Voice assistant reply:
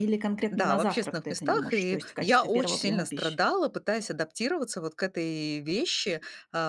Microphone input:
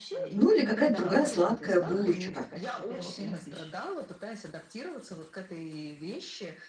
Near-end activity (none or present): present